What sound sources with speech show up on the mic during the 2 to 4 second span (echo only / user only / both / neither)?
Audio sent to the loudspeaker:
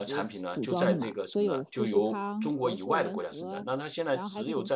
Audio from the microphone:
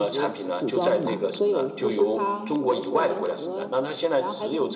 echo only